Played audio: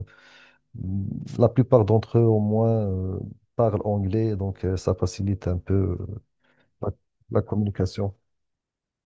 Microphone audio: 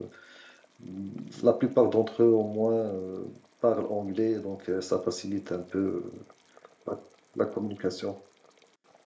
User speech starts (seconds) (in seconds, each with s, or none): none